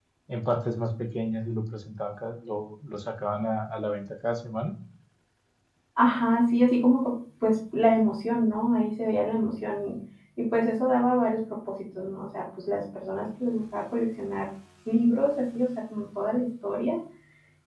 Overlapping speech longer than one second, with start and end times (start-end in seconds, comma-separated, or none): none